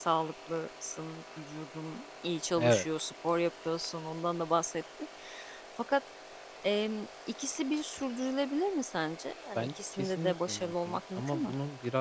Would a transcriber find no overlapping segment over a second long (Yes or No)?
No